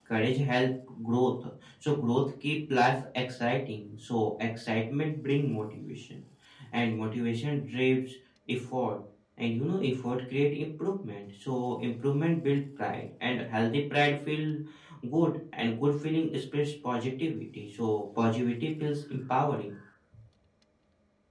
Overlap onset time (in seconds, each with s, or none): none